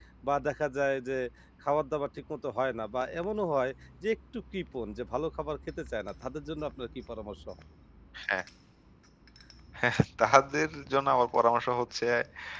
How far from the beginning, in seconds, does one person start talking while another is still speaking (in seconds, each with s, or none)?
none